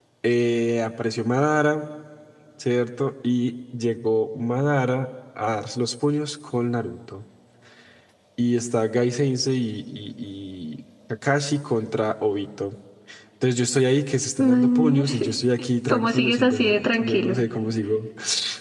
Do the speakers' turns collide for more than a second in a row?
Yes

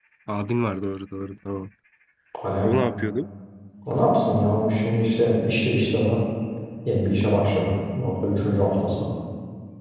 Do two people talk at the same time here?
No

